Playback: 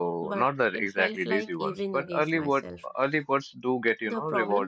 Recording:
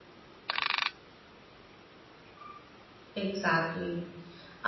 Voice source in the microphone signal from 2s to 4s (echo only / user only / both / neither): user only